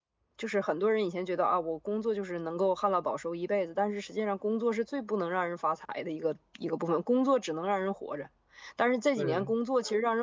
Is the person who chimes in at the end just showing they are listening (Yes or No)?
Yes